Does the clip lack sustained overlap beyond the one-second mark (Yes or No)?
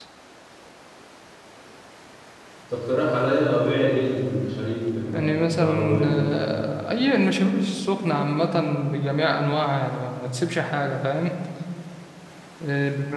No